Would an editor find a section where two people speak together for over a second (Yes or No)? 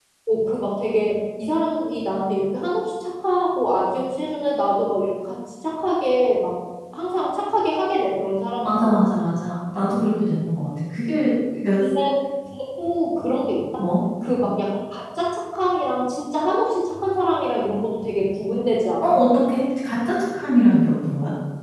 No